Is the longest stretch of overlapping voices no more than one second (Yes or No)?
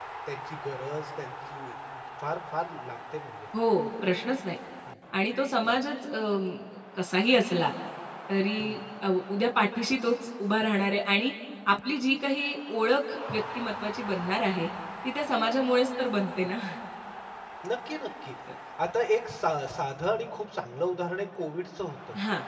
Yes